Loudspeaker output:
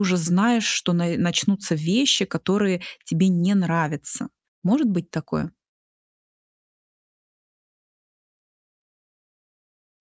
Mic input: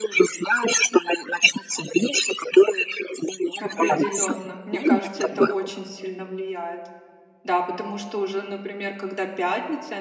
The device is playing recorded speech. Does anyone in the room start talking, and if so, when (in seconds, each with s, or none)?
3.6 s